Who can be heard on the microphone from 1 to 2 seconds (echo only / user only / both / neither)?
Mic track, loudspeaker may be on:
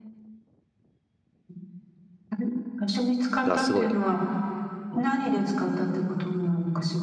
neither